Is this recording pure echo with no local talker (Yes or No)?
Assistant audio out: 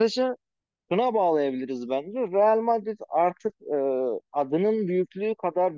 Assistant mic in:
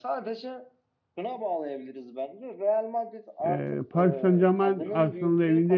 No